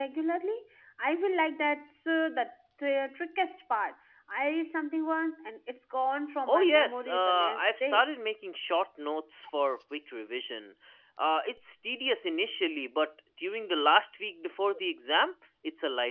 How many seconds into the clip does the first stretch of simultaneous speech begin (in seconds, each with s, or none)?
6.5 s